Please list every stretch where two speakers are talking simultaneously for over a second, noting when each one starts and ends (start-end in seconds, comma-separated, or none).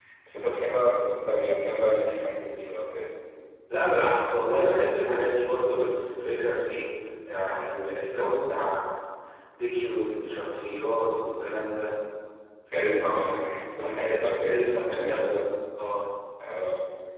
13.7-15.4